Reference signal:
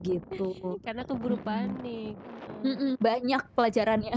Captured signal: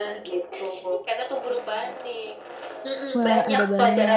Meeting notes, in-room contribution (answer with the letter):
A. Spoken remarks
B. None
A